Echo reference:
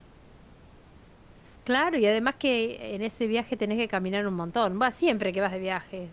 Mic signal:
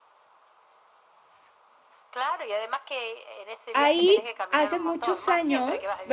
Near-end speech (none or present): present